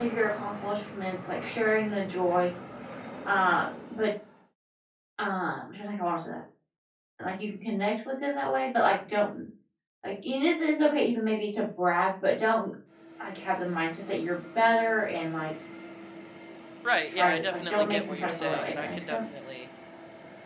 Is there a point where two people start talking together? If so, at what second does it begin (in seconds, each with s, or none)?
17.1 s